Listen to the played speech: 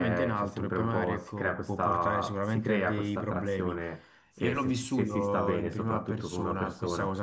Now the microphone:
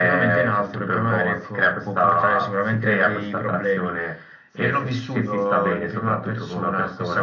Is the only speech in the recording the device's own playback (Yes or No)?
Yes